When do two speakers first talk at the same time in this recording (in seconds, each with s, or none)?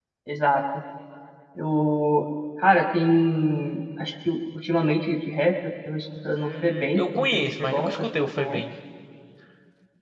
6.2 s